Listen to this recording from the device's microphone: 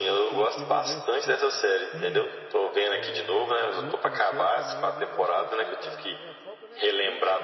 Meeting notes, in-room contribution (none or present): present